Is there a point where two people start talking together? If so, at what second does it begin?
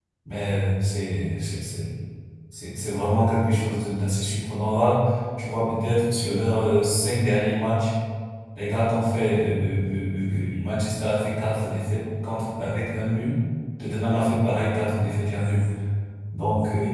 none

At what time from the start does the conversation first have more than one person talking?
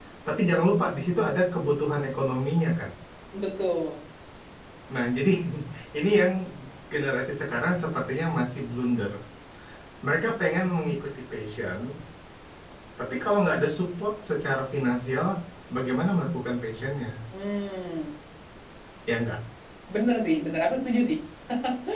none

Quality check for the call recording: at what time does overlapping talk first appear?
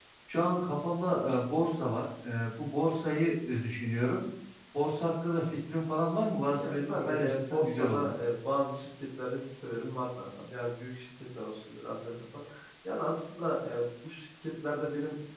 6.4 s

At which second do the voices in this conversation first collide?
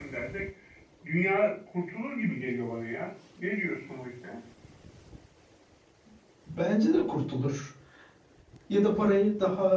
none

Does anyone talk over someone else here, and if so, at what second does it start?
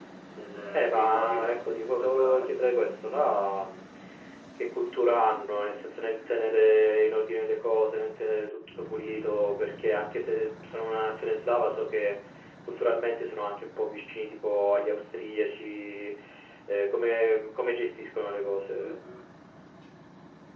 0.7 s

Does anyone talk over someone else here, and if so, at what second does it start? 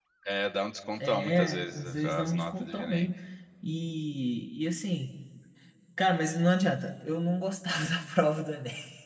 1.0 s

